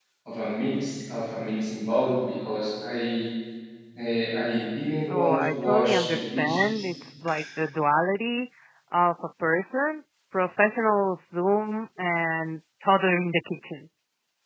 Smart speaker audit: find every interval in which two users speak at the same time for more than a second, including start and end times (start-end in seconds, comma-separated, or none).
5.1-6.8